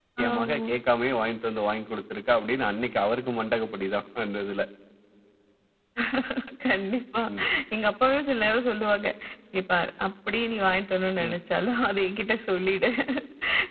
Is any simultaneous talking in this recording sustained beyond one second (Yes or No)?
No